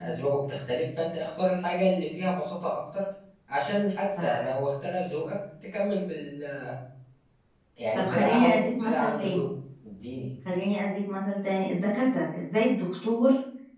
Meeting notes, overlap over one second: present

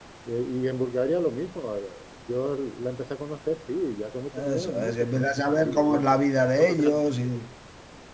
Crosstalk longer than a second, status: present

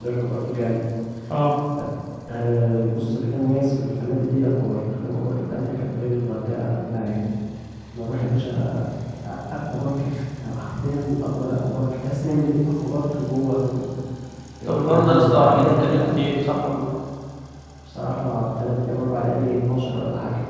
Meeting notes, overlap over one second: present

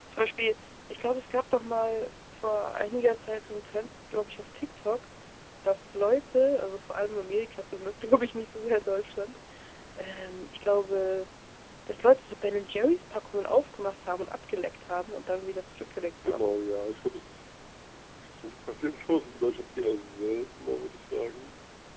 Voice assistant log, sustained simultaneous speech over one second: none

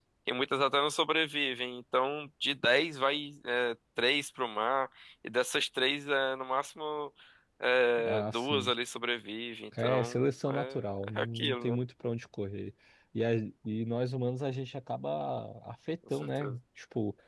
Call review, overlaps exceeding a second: present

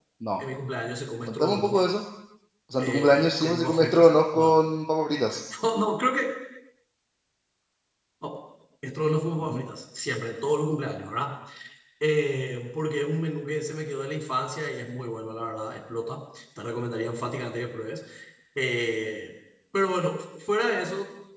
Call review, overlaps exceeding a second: present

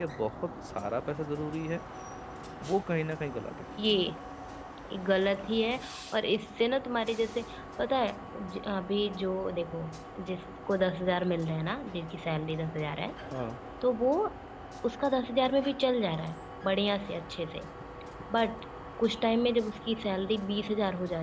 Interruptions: none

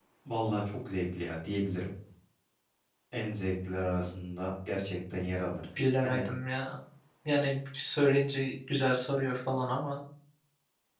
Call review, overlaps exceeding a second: none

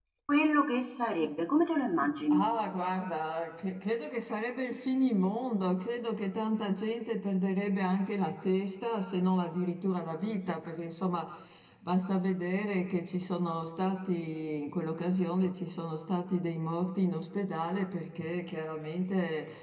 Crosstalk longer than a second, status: none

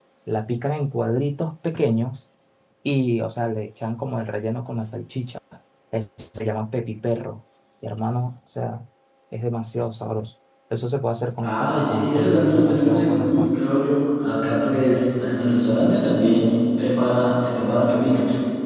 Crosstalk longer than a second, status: present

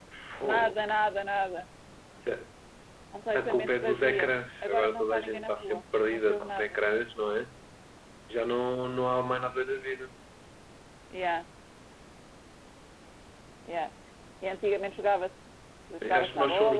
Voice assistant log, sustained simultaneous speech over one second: present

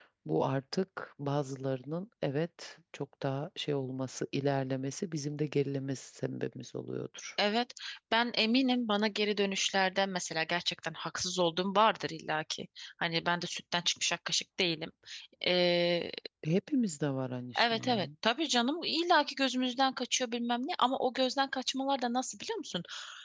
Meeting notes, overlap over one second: none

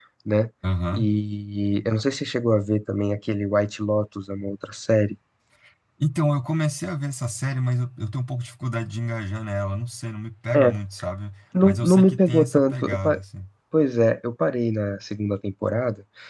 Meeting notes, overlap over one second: present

